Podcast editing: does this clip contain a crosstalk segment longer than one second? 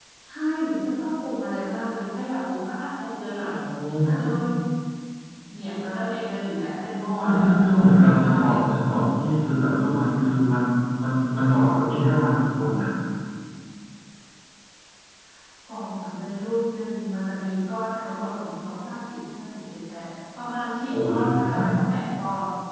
Yes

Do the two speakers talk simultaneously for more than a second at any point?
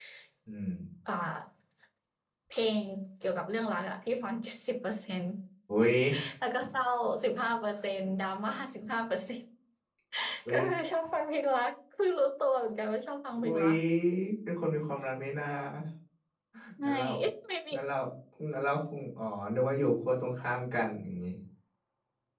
No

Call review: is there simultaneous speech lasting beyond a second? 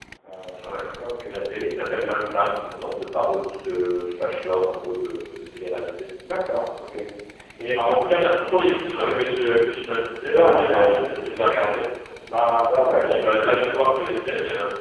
Yes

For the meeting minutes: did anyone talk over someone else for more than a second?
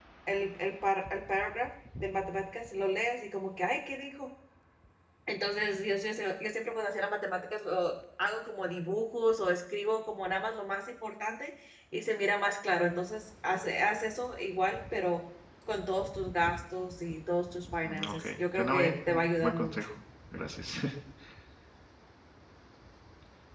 Yes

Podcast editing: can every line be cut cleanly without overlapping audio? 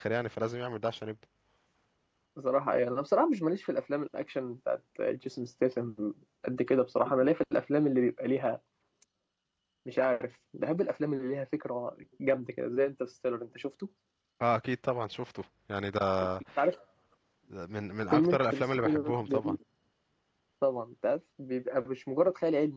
No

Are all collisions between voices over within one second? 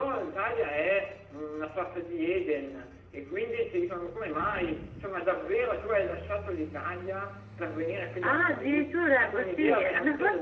No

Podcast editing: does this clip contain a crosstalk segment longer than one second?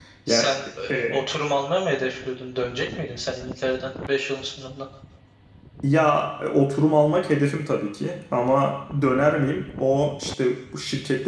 No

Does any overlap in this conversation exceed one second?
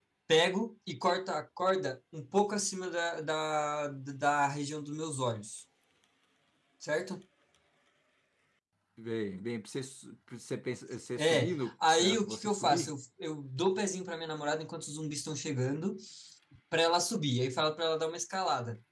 Yes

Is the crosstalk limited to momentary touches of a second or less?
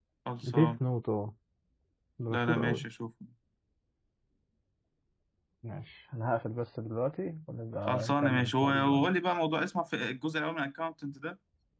No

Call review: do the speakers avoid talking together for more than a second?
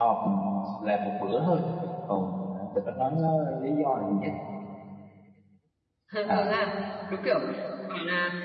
Yes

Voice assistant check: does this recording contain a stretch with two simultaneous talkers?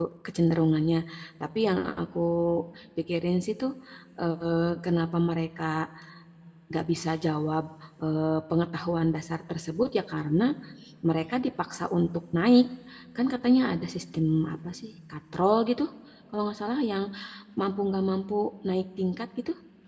No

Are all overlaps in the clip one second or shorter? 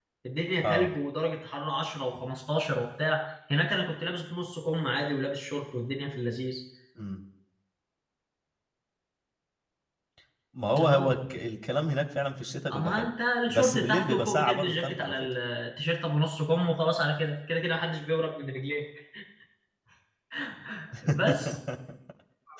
No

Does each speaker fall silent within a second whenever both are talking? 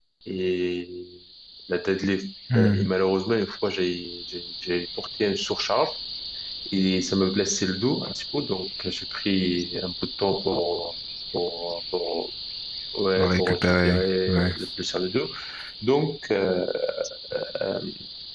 No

